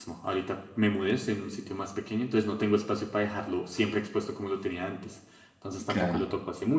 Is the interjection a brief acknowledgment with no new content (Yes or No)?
Yes